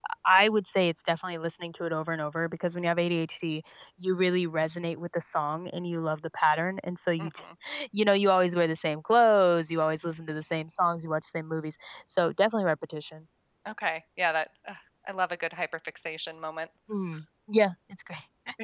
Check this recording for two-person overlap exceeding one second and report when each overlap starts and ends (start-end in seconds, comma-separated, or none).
none